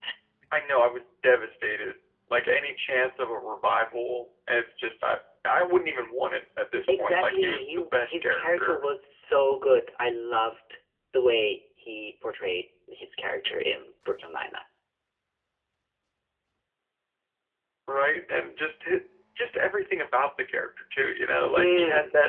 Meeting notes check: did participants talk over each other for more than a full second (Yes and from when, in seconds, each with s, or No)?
Yes, from 7.0 s